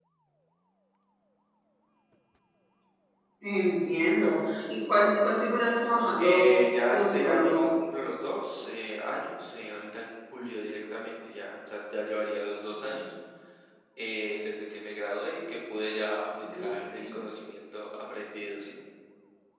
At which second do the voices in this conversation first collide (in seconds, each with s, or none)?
6.2 s